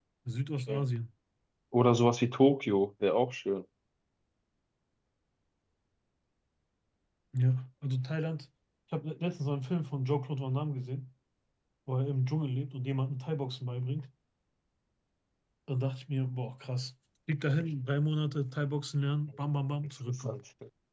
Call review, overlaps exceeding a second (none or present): none